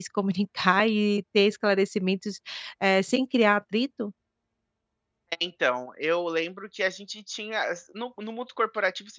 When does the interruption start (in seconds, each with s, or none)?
none